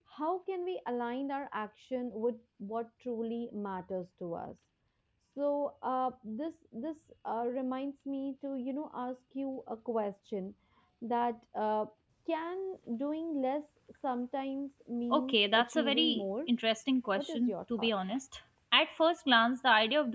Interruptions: present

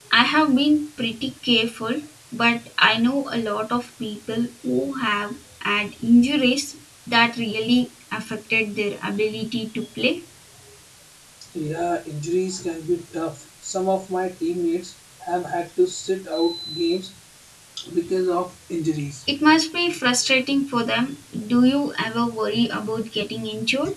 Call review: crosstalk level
none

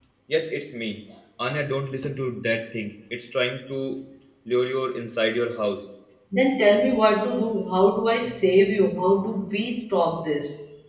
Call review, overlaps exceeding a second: none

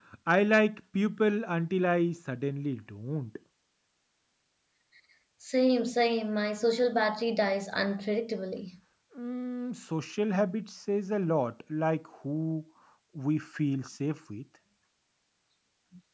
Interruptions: none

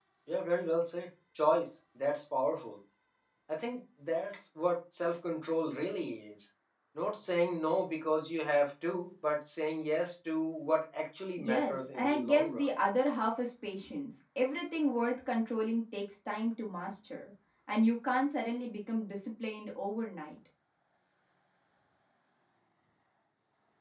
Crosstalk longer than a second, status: present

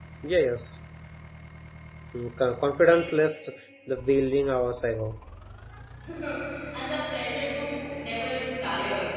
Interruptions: none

